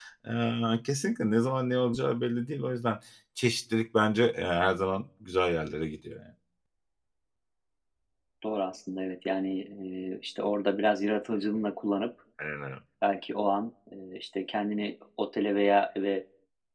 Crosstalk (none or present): none